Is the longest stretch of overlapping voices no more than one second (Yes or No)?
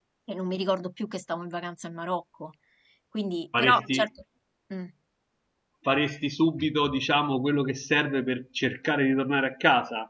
Yes